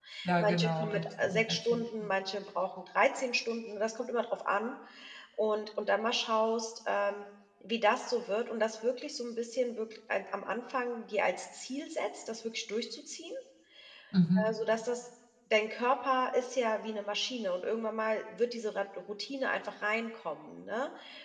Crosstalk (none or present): present